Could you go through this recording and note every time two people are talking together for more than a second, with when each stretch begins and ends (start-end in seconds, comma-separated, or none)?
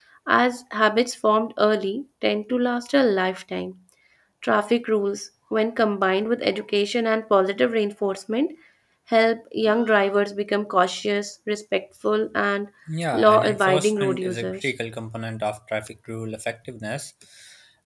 13.1-14.7